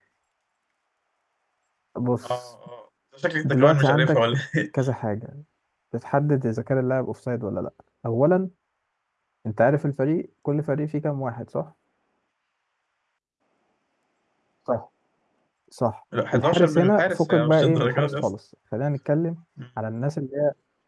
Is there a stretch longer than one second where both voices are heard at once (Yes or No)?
Yes